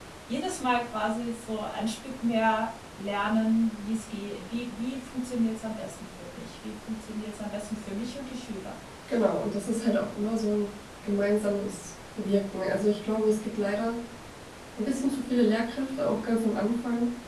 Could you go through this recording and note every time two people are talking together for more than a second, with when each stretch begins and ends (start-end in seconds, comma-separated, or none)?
none